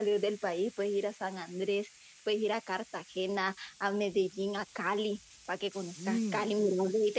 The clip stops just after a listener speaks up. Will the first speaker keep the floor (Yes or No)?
Yes